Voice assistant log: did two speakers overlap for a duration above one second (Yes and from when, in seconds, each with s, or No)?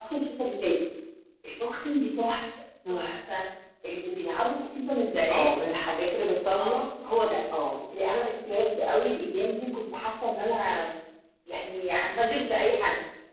No